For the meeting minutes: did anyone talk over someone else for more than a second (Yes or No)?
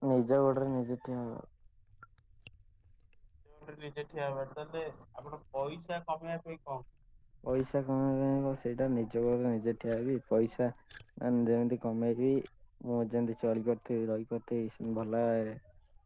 No